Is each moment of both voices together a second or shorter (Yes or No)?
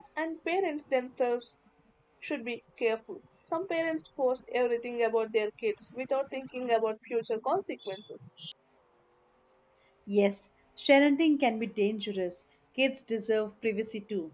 Yes